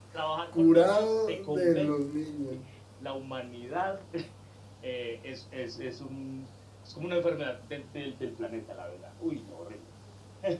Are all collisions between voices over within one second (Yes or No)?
No